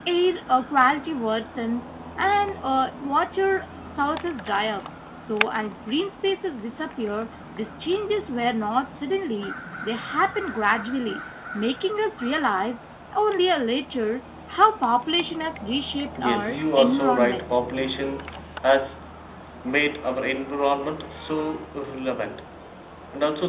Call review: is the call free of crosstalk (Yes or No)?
No